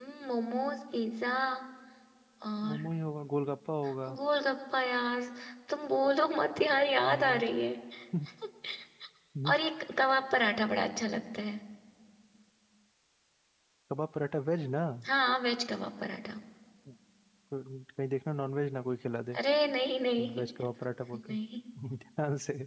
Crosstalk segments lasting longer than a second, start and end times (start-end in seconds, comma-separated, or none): none